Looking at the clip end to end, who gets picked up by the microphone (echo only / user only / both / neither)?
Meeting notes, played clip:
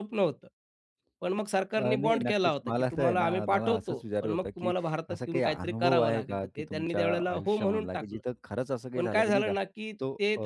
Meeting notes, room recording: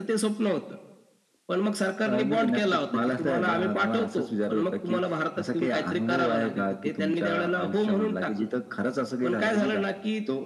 both